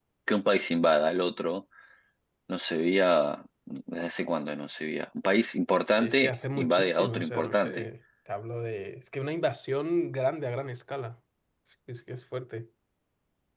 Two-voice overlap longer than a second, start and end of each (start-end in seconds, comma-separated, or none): 6.0-7.9